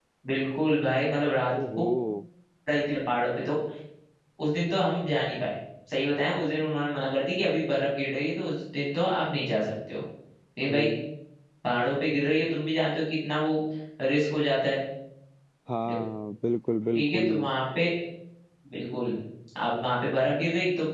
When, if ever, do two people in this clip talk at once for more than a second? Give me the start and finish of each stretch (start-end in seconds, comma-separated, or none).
none